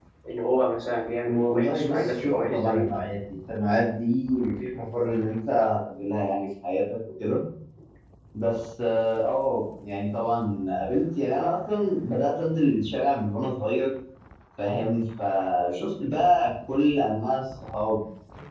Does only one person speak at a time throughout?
No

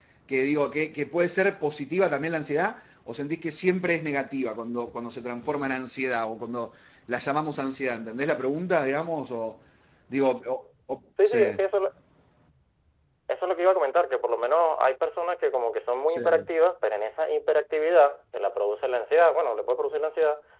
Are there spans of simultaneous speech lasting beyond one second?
No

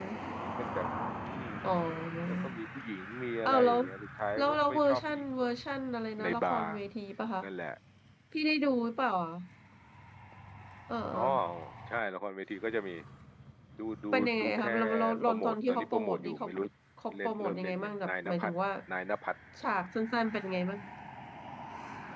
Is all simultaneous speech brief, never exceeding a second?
No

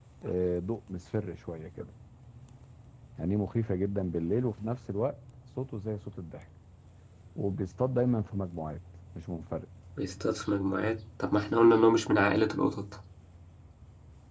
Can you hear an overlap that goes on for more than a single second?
No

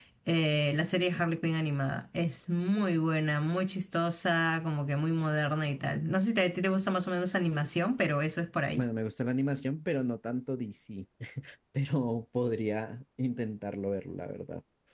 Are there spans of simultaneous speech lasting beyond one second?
No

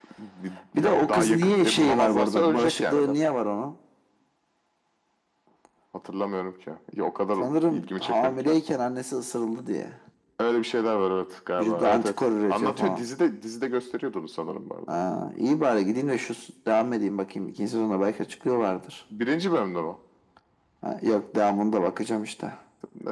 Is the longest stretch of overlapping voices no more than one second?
No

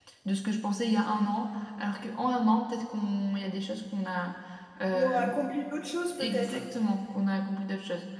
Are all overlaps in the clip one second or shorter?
Yes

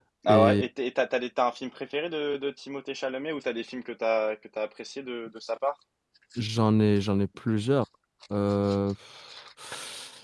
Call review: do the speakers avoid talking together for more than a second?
Yes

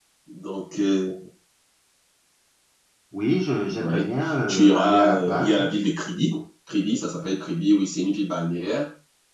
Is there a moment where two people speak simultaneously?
Yes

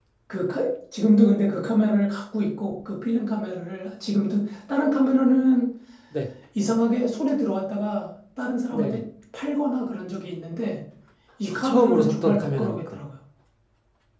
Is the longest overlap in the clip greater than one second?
Yes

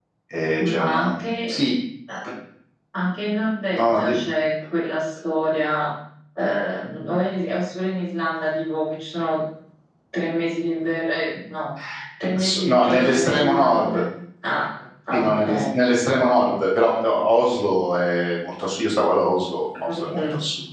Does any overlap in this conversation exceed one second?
Yes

